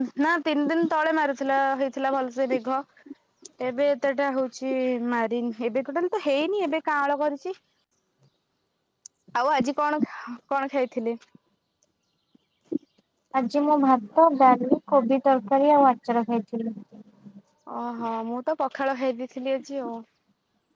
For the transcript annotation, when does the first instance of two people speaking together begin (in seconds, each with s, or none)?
none